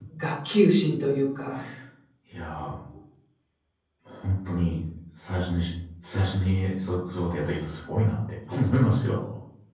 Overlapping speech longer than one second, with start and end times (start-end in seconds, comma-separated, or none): none